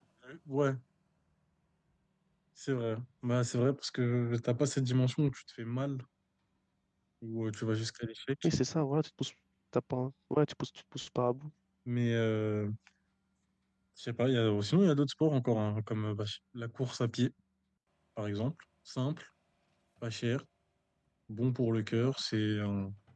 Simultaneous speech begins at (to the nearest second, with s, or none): none